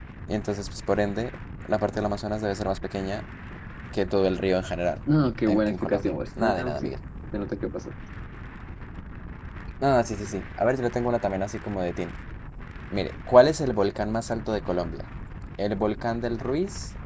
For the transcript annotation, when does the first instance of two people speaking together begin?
5.5 s

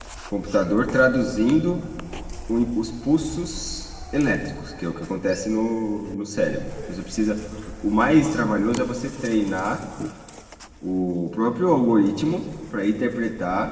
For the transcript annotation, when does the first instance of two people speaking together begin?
none

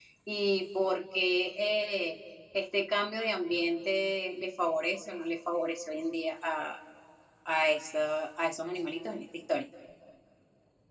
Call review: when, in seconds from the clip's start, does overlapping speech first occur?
none

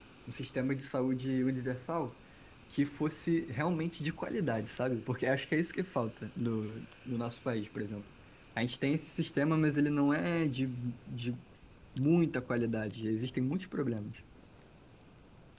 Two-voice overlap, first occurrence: none

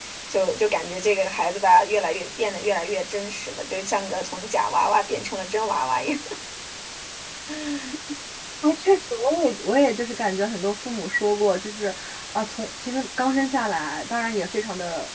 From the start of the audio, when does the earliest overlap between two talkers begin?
none

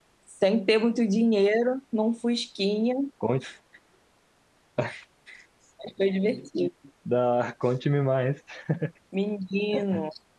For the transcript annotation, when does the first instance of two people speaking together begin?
none

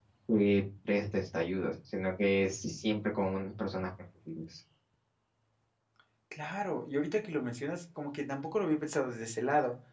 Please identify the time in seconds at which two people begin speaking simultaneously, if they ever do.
none

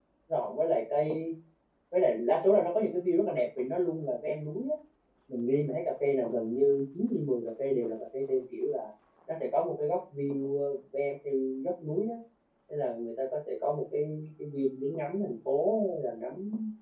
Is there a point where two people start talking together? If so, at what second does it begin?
none

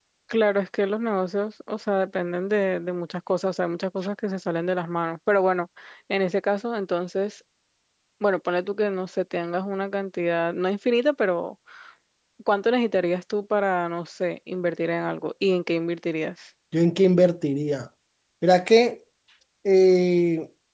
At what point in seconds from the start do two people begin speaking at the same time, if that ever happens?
none

